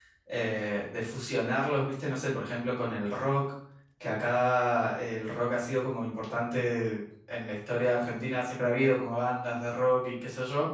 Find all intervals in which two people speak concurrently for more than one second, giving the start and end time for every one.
none

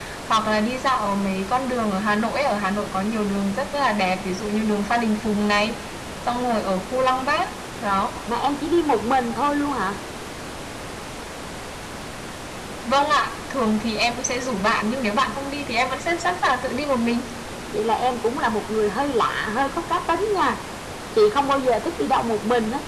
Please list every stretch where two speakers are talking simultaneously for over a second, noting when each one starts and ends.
none

